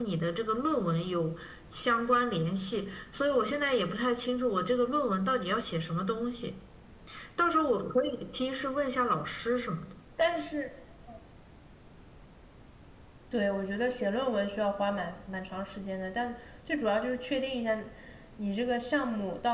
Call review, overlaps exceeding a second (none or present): none